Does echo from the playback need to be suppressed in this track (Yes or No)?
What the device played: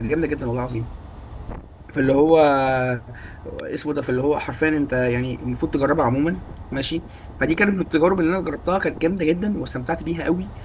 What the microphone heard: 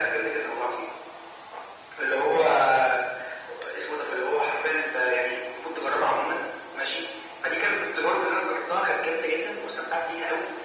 Yes